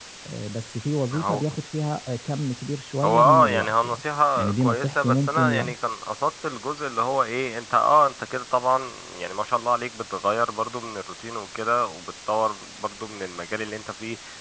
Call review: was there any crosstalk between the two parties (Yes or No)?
Yes